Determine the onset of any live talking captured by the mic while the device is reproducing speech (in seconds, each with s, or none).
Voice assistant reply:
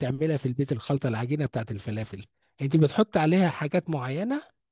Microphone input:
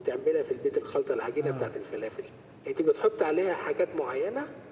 1.4 s